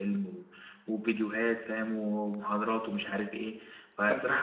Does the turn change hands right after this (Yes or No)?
No